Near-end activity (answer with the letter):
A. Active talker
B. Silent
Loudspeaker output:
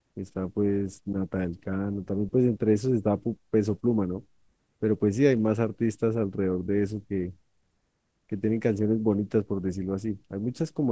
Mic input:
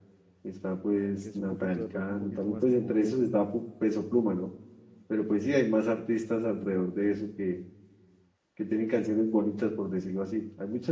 A